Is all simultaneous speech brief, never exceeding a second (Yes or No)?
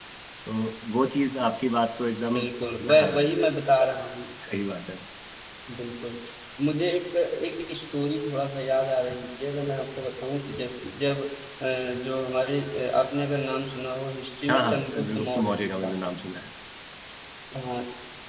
No